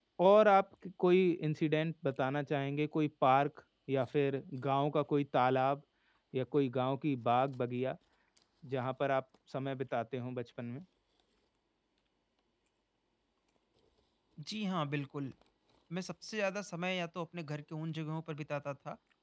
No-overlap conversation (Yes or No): Yes